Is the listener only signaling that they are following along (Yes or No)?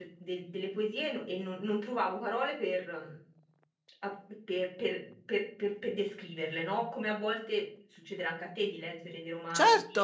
No